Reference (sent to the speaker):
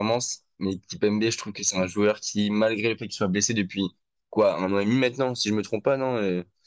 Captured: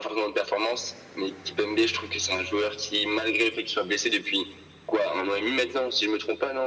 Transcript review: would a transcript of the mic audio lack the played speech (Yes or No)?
No